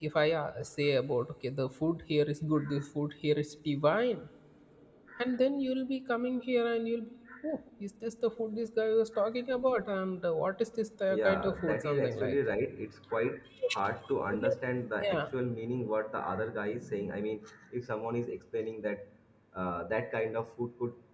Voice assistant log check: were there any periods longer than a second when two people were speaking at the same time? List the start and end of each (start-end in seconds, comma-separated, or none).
11.1-12.6